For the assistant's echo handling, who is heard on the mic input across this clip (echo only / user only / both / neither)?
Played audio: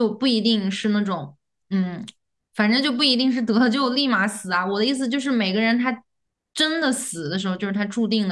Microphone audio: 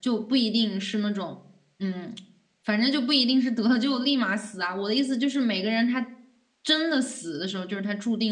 echo only